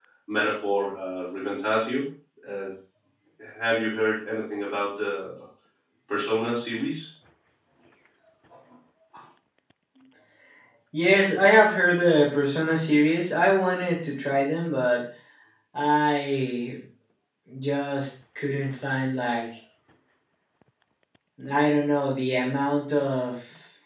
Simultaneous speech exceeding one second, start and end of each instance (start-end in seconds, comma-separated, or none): none